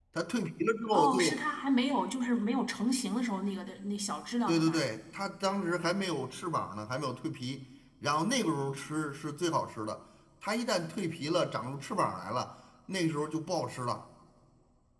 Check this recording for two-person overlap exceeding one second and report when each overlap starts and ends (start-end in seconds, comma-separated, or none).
none